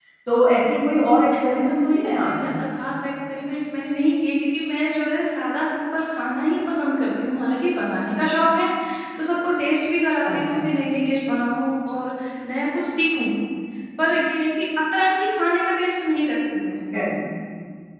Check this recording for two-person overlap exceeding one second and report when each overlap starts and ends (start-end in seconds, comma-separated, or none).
0.7-2.6